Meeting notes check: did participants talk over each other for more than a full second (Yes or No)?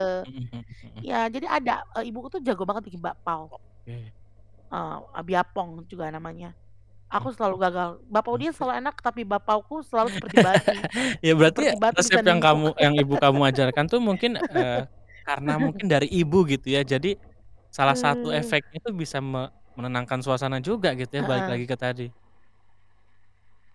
Yes